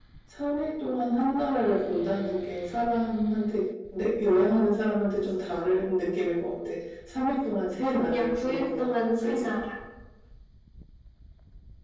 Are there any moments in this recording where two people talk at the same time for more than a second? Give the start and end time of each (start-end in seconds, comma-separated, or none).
8.0-9.5